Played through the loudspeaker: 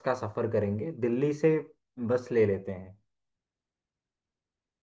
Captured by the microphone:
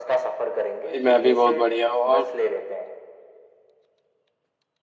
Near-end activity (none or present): present